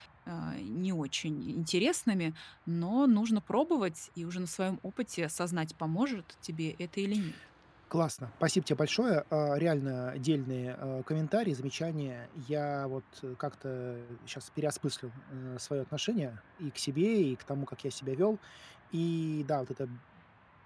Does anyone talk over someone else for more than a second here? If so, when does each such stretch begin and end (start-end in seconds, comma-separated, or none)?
none